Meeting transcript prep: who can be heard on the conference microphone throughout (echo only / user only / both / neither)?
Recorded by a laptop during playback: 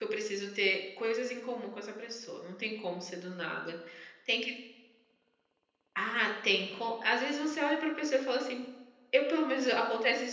user only